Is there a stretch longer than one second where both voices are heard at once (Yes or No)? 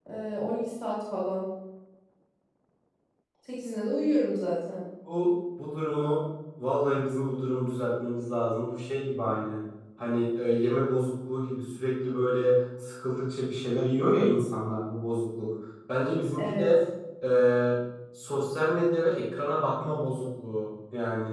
No